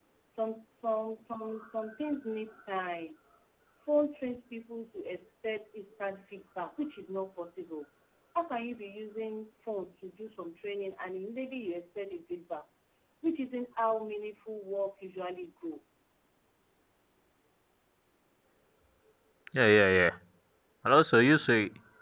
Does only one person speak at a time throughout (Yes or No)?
Yes